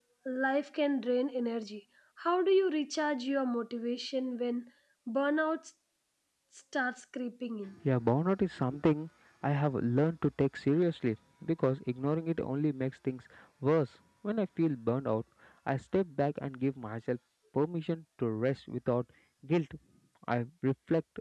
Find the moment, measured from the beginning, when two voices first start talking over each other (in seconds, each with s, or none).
none